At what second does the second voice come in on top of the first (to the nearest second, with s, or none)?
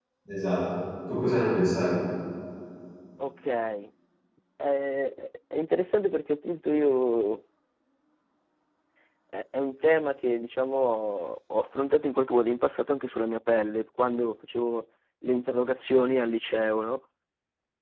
none